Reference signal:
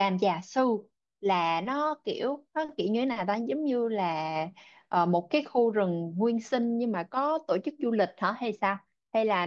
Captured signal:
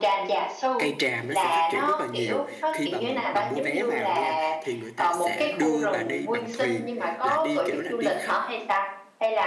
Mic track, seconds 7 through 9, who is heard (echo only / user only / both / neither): both